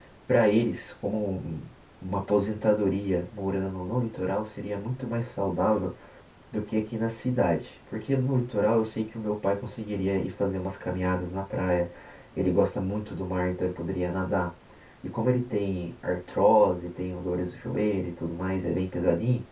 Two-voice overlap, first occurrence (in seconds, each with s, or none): none